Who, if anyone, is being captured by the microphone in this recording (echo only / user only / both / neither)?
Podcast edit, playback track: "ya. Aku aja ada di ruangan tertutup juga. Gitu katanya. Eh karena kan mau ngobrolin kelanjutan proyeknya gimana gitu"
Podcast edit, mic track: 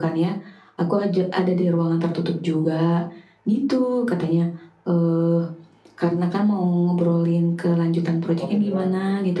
both